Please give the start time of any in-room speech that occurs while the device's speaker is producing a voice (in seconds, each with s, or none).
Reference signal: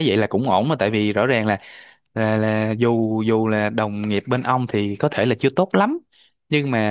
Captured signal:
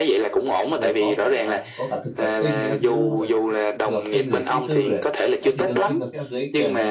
0.7 s